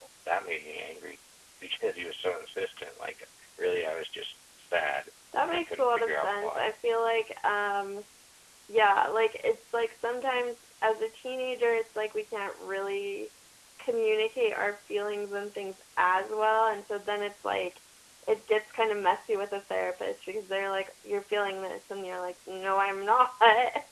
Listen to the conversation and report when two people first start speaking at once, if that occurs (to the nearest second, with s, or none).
5 s